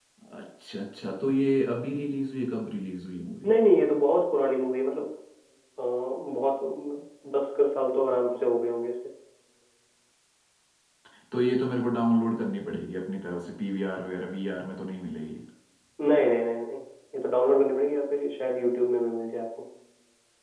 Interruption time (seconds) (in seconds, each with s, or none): none